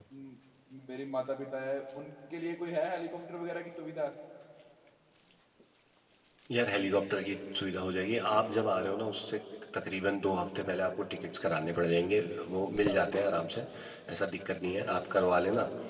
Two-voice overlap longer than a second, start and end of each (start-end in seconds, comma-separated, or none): none